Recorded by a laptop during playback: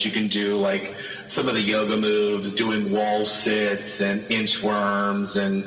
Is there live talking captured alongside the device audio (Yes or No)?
No